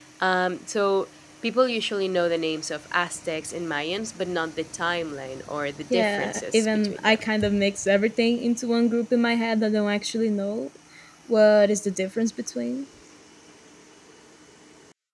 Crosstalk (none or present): present